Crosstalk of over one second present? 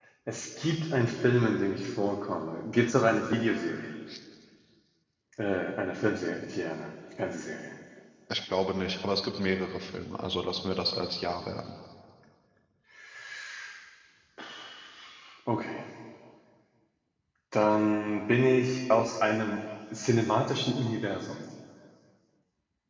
No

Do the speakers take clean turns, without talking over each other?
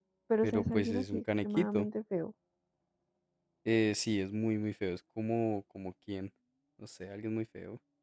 No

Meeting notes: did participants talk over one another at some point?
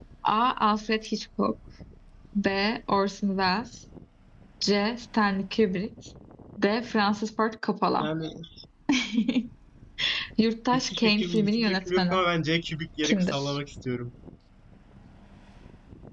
Yes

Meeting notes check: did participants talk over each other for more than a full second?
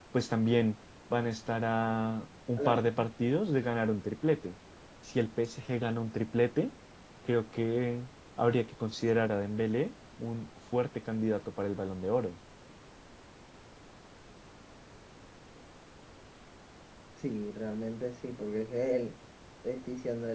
No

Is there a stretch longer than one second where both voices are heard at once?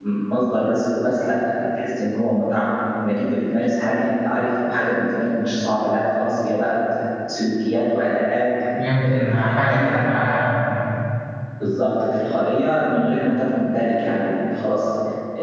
Yes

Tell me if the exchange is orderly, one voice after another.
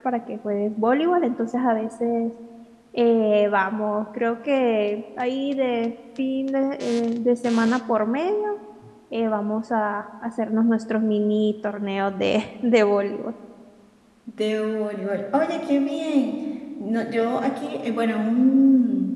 Yes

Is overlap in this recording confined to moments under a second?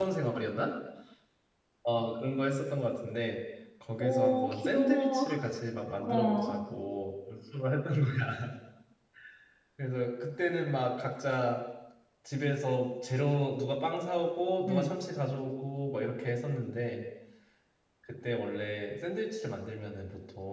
No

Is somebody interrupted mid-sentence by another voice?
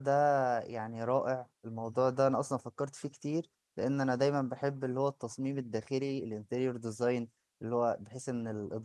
No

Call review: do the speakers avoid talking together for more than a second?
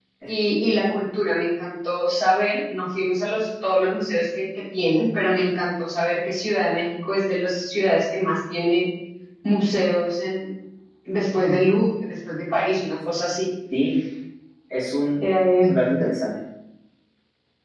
Yes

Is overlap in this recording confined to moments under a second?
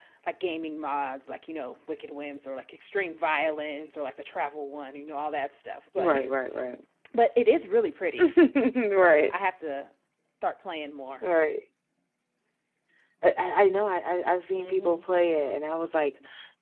Yes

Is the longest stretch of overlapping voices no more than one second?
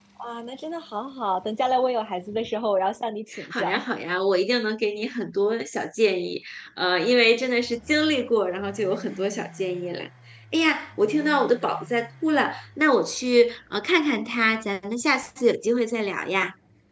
Yes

